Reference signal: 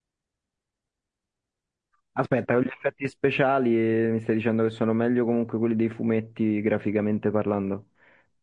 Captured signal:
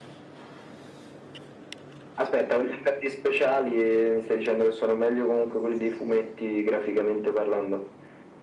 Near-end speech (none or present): none